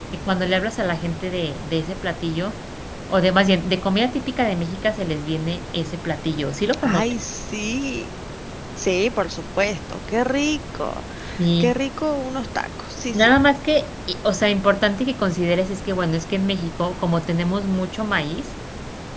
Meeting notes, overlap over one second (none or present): none